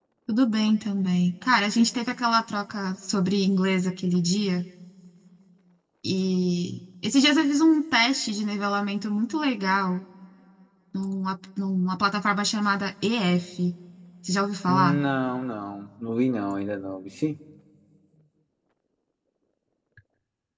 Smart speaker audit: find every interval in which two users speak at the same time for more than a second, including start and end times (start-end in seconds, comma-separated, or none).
none